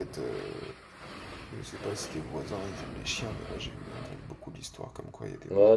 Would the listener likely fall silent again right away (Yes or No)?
No